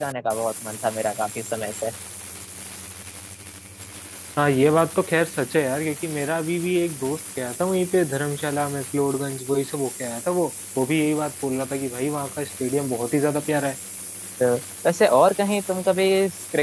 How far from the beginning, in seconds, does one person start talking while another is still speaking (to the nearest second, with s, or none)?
none